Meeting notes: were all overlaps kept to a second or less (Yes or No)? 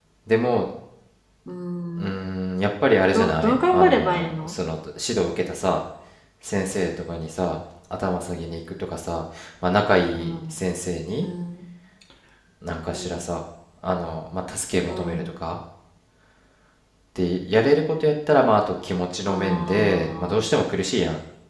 No